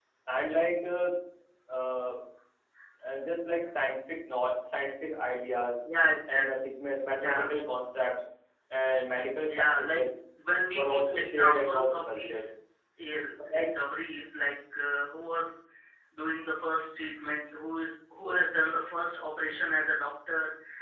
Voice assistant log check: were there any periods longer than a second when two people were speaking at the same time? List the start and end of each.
10.7-12.4

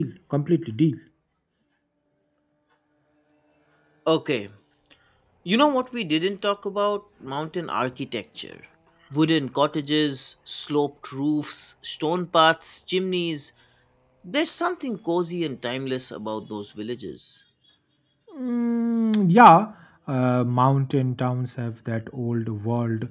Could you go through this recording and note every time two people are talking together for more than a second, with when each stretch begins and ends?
none

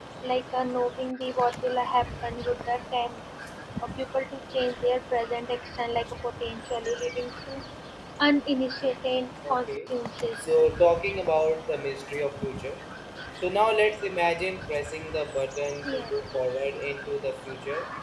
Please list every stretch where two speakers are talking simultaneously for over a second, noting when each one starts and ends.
none

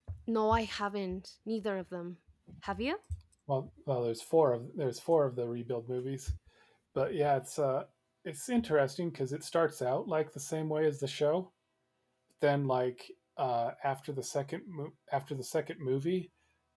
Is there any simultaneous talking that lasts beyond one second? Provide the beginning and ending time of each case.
none

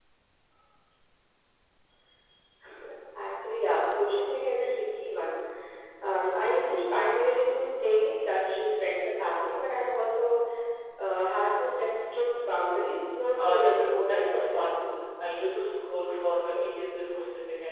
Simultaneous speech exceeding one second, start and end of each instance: 13.4-14.9

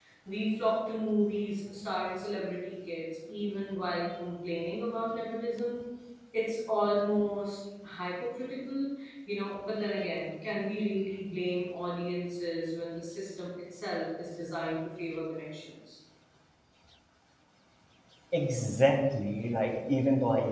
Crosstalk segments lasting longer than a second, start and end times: none

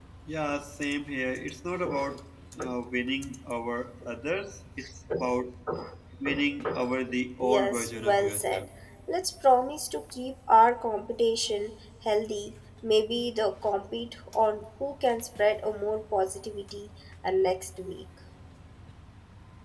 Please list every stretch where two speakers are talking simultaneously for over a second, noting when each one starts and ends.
7.4-8.6

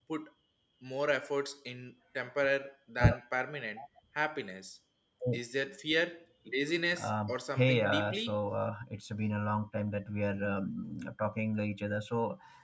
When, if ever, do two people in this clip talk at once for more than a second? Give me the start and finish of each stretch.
7.0-8.3

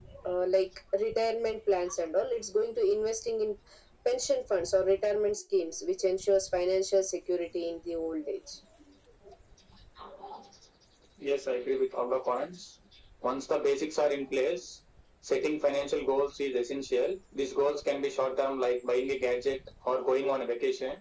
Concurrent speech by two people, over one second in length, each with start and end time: none

